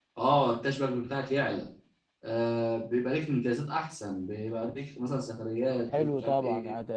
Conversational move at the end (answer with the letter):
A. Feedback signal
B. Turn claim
B